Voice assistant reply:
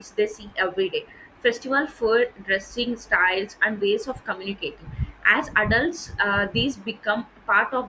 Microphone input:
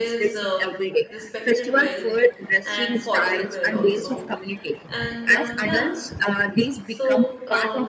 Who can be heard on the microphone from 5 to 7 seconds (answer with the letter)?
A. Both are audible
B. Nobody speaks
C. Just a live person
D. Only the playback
A